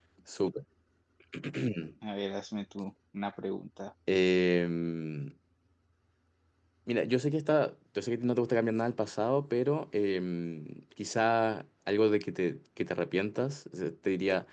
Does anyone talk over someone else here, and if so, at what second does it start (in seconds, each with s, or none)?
none